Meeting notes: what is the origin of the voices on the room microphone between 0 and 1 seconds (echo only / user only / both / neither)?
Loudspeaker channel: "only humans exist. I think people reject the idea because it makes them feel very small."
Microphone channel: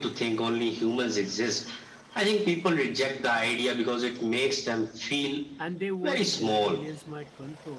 echo only